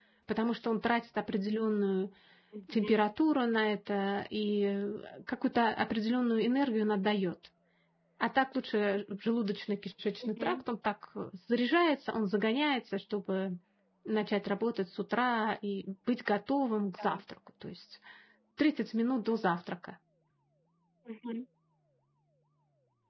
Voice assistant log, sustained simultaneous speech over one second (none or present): none